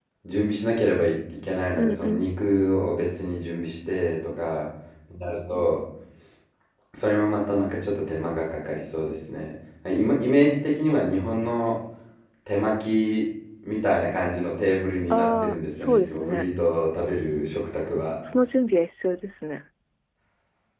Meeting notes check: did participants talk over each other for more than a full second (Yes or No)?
Yes